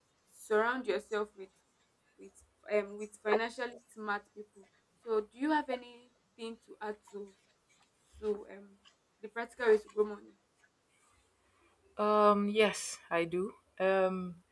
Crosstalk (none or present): none